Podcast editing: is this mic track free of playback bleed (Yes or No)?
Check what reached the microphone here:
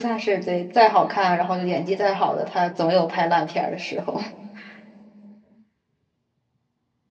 Yes